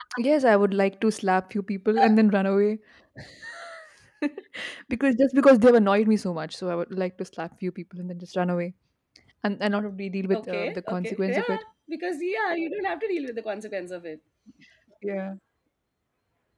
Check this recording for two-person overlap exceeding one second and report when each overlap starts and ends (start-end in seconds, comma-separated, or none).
10.3-11.6